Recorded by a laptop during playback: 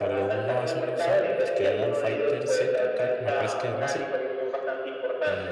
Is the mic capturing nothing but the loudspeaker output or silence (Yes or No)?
No